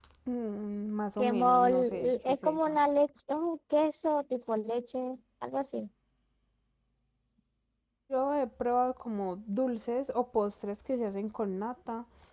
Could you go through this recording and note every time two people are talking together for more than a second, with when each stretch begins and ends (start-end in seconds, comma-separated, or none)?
1.2-2.8